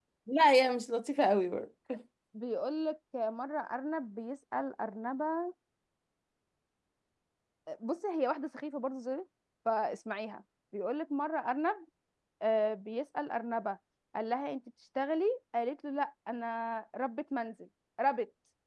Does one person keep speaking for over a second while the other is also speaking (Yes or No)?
No